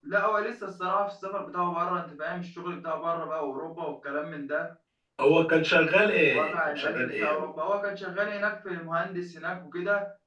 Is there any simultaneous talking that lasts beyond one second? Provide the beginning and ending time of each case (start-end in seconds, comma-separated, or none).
6.2-7.5